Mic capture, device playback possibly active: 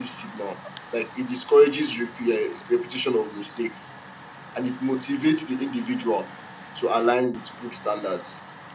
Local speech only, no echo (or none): none